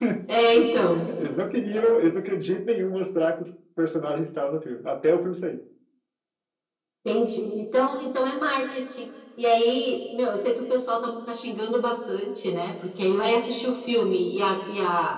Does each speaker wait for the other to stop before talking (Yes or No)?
Yes